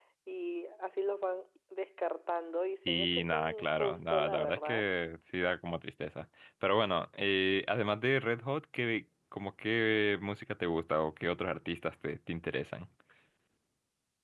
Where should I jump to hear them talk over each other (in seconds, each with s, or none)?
2.9 s